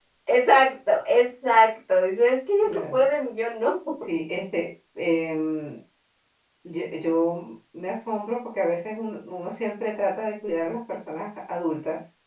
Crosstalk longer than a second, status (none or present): none